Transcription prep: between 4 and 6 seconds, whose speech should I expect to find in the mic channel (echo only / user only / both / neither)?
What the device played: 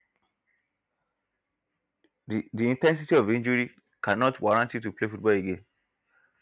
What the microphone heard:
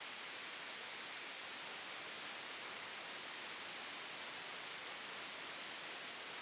neither